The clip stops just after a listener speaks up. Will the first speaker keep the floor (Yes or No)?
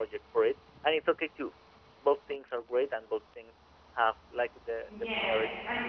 No